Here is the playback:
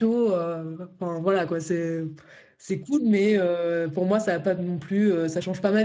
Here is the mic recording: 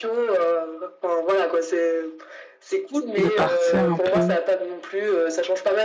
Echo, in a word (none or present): present